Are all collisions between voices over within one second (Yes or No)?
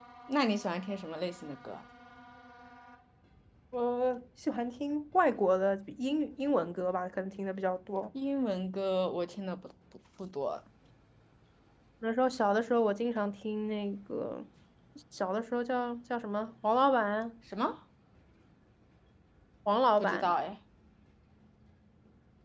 Yes